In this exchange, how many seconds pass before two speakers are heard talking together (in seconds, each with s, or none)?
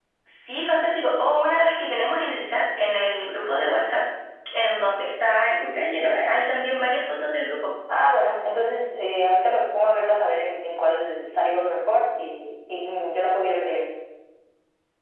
none